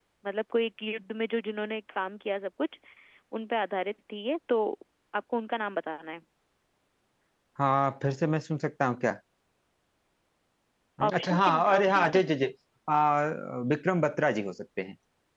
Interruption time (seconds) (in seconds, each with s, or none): 11.1 s